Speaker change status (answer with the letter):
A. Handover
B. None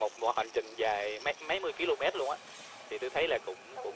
A